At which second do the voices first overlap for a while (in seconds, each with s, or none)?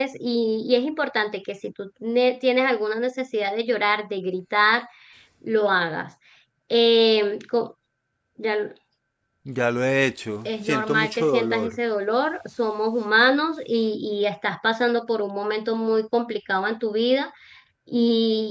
10.4 s